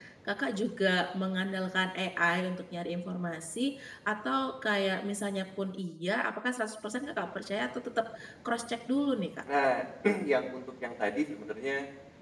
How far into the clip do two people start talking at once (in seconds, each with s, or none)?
none